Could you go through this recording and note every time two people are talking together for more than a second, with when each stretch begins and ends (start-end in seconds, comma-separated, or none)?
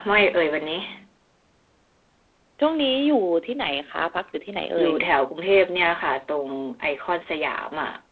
none